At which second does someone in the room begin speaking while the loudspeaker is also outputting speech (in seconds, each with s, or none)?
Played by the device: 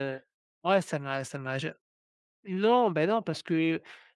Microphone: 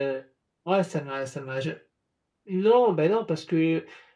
none